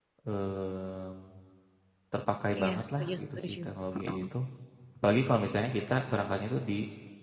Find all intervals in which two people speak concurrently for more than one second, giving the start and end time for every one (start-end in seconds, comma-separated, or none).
2.6-4.2